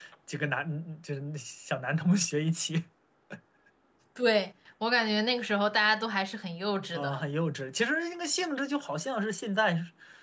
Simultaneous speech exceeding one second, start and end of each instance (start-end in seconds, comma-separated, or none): none